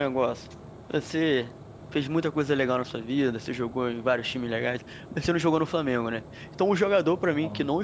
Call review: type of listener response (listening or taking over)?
listening